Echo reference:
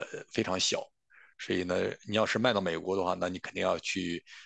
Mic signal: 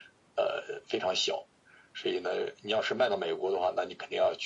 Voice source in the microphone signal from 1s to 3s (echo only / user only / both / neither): echo only